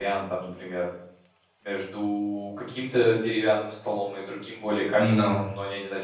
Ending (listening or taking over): listening